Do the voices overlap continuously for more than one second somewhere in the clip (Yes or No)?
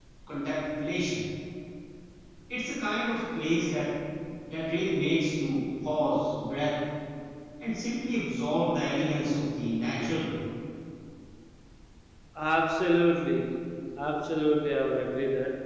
No